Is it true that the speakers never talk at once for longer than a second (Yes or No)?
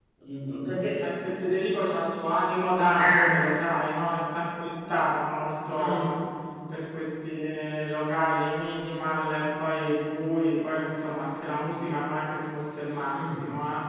Yes